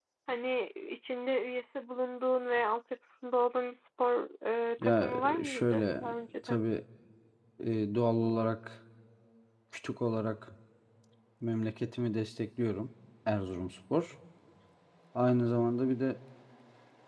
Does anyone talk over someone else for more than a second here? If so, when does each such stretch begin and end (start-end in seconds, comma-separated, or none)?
4.8-6.0